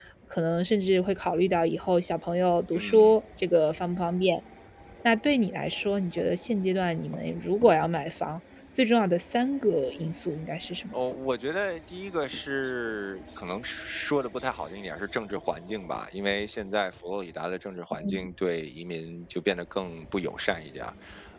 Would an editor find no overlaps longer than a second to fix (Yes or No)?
Yes